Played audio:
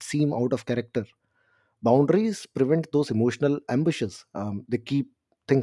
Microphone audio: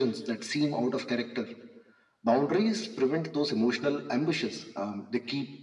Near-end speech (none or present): none